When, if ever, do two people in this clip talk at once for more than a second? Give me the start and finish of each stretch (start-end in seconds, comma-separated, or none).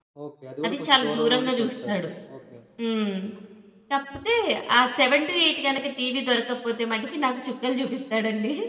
0.7-2.0